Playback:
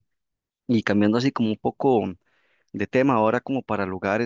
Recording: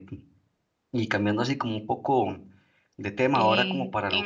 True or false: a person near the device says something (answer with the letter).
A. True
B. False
A